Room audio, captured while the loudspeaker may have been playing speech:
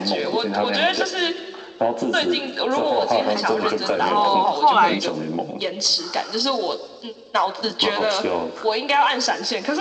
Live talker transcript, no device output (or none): 开始玩嘛，然后后来